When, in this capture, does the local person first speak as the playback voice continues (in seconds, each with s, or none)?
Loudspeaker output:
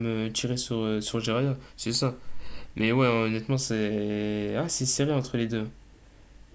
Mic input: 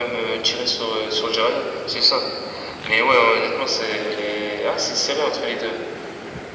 none